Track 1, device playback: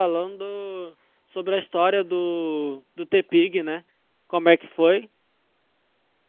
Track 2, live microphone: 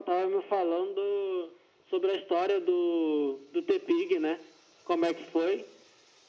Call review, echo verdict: present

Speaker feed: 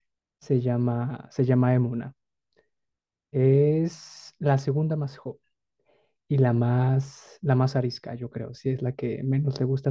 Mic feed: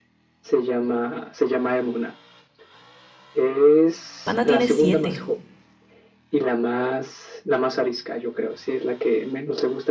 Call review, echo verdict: present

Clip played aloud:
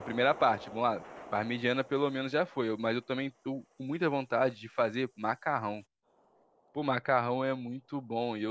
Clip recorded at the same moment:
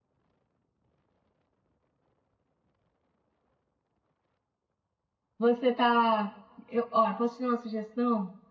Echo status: none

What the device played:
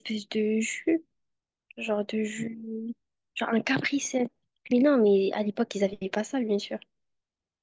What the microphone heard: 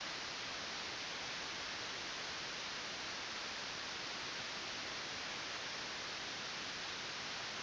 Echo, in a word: none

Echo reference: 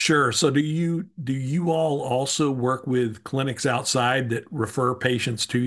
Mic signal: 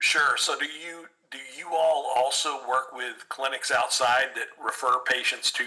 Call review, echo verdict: present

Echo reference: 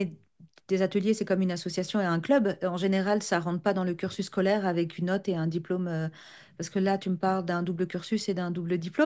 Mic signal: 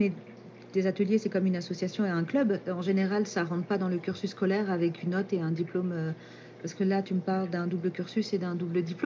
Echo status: present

